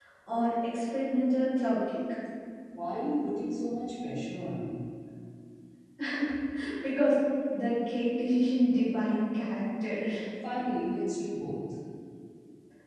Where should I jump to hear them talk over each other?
none

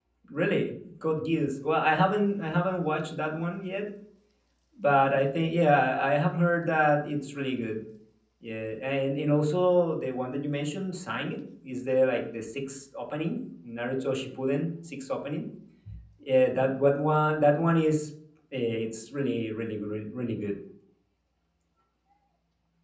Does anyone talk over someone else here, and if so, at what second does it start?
none

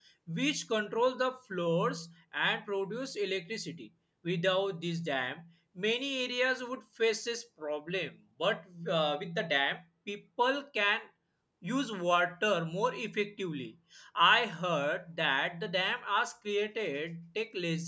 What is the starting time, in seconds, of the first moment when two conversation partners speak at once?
none

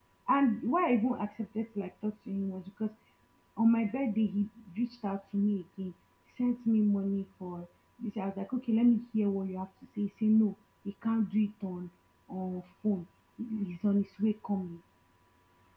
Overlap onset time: none

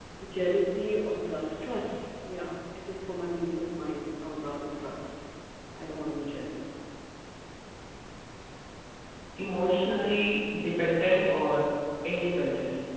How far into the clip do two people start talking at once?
none

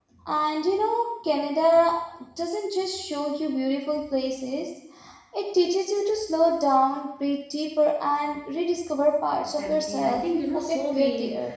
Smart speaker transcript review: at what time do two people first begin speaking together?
9.6 s

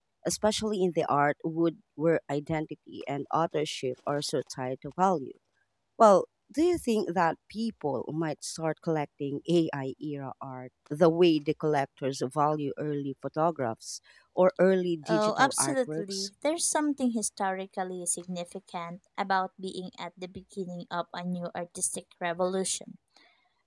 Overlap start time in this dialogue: 15.1 s

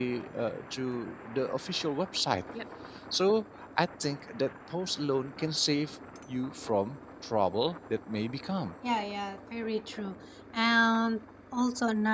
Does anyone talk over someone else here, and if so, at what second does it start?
none

